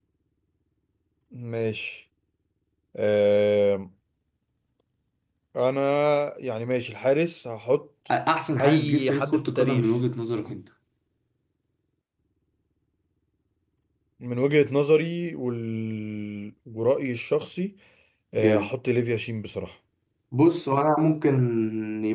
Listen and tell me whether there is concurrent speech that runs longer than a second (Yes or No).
Yes